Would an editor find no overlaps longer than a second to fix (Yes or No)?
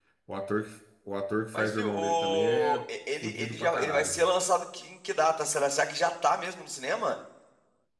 No